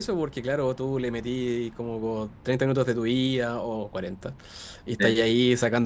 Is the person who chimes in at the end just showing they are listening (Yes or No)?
Yes